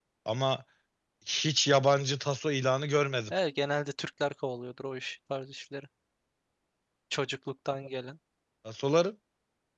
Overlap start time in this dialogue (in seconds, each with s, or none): none